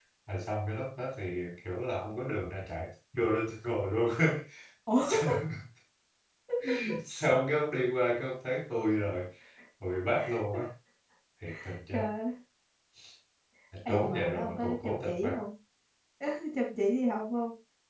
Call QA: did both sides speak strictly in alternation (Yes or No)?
No